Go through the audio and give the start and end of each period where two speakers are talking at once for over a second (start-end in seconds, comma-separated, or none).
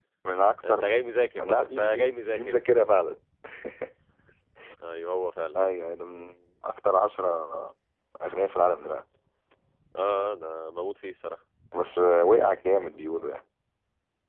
1.4-2.6